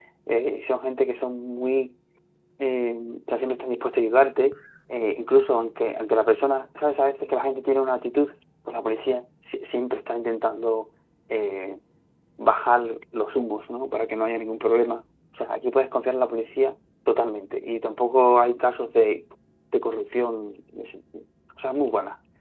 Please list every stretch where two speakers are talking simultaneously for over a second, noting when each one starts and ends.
none

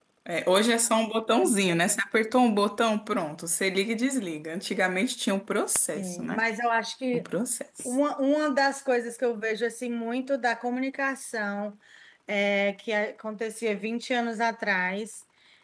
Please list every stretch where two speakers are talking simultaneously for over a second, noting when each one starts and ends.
none

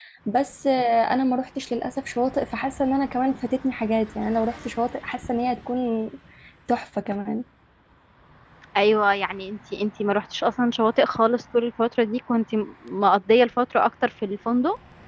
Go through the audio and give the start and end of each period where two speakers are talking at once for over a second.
none

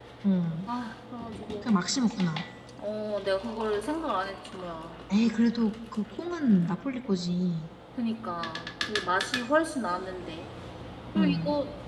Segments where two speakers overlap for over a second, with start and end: none

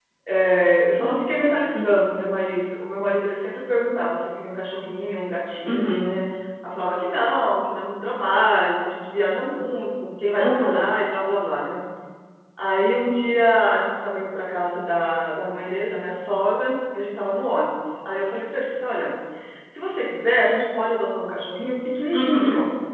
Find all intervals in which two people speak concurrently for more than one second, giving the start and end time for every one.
none

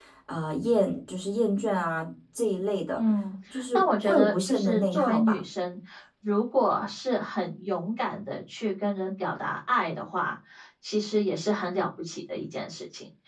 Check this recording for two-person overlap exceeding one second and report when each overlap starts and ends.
3.7-5.4

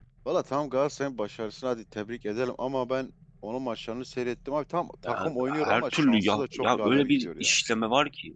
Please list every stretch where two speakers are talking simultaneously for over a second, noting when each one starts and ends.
5.0-7.5

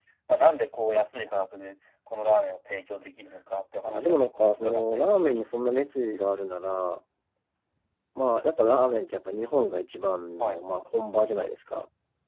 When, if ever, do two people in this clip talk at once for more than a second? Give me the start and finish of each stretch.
3.9-5.4

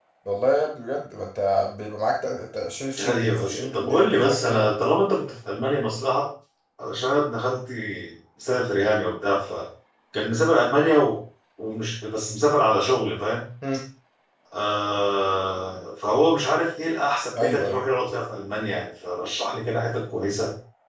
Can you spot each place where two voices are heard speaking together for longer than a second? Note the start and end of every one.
3.0-4.7

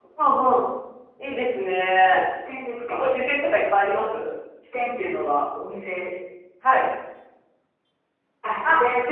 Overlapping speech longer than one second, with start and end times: none

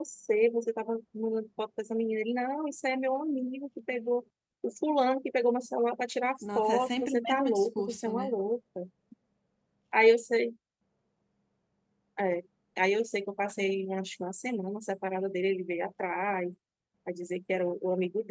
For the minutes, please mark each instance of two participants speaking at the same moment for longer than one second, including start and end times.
6.4-8.4

